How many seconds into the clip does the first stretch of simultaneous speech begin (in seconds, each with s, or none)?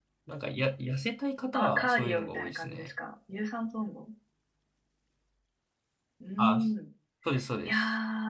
1.5 s